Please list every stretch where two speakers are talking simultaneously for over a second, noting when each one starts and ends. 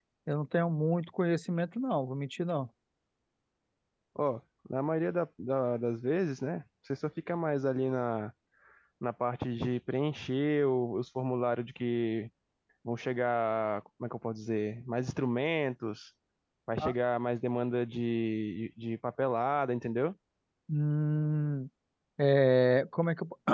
none

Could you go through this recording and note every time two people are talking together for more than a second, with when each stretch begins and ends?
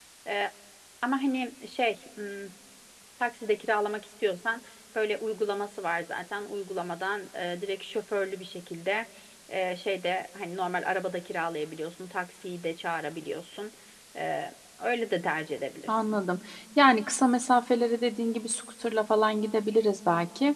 none

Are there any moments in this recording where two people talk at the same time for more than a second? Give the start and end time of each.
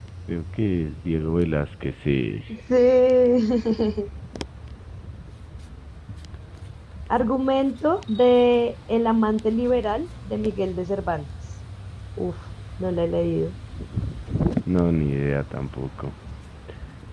none

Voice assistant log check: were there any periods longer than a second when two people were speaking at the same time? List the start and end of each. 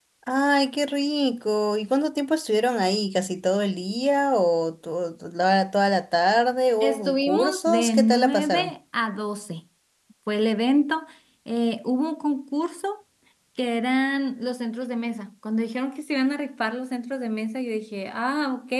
6.8-8.7

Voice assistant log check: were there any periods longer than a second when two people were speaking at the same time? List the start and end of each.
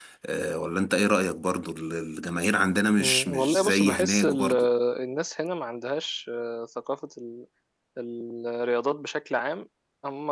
3.0-4.5

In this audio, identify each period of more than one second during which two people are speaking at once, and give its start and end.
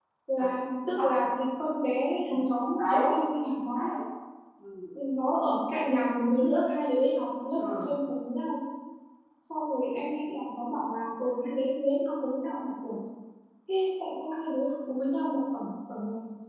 none

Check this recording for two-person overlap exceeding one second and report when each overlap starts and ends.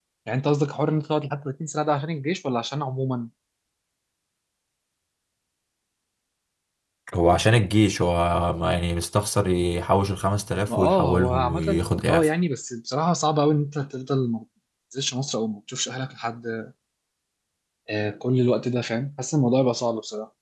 10.7-12.3

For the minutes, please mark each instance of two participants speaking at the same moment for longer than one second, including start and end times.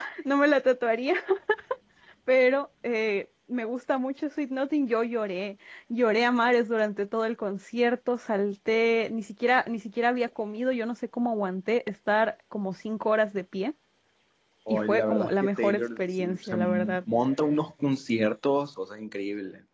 14.7-17.0

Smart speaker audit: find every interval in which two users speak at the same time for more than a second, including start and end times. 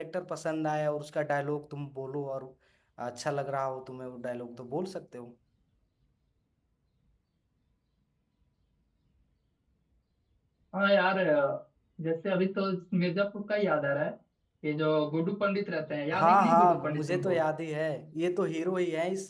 16.1-17.4

